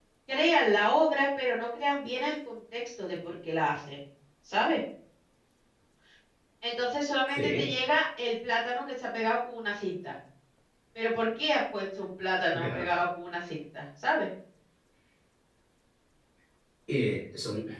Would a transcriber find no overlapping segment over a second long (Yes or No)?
Yes